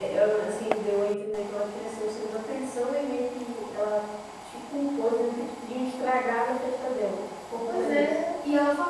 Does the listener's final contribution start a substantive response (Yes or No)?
Yes